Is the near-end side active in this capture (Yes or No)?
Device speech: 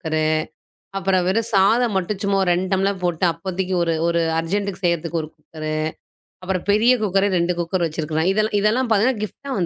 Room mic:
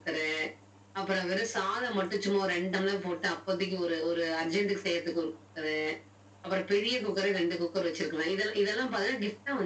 No